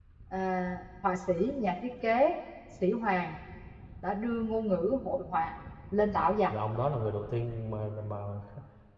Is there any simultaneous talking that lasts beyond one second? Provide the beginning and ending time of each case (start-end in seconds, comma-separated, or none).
none